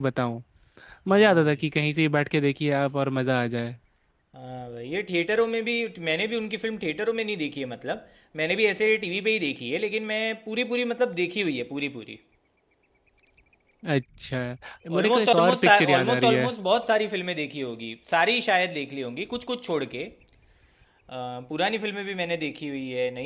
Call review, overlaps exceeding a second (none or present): present